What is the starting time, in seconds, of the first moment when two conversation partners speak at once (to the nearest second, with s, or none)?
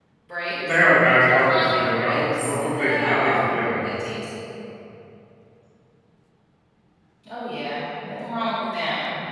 1 s